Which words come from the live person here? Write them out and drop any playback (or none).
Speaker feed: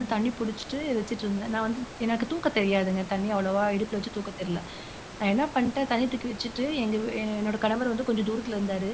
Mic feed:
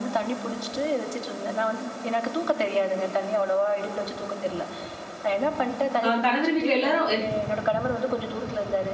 அ, கணவர் வீட்ல எல்லாரும் அ,